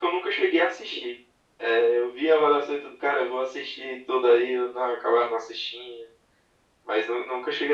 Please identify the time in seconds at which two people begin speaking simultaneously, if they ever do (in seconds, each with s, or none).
none